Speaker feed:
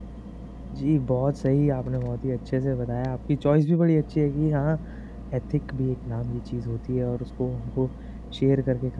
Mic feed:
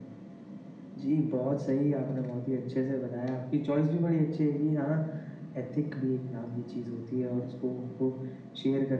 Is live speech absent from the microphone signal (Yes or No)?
Yes